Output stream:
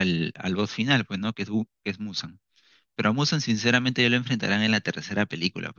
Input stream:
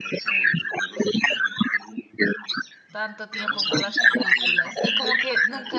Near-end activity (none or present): present